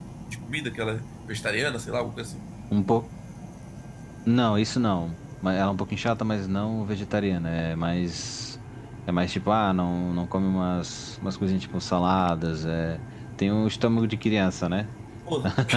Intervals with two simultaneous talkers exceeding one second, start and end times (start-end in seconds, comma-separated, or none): none